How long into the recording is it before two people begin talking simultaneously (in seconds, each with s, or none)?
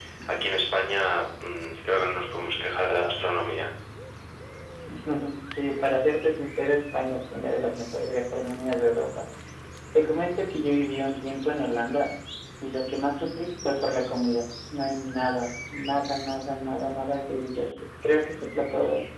none